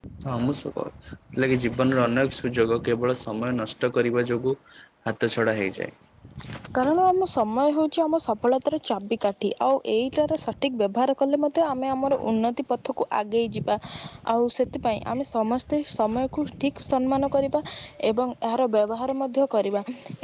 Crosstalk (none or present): none